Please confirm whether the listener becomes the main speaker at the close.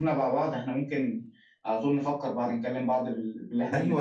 Yes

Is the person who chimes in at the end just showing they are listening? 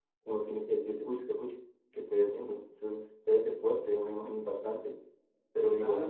No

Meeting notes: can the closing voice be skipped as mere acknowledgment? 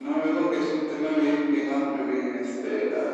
Yes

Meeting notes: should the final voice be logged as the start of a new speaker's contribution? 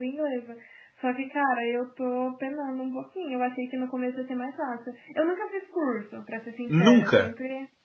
No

